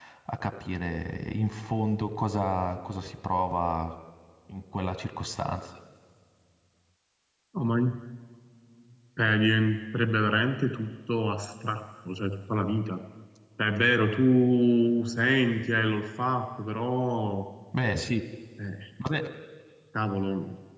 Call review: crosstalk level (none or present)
none